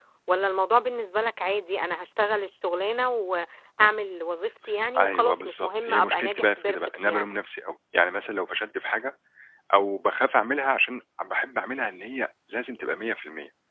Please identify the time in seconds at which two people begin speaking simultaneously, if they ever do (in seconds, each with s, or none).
5.0 s